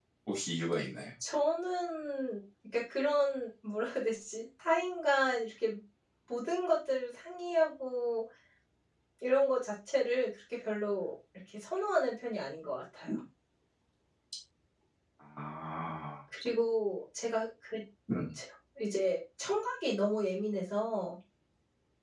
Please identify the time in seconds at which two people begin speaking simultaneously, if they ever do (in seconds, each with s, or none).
none